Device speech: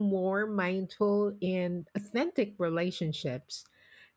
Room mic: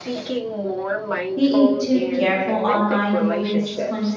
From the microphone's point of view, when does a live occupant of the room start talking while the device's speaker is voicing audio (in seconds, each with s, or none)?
1.3 s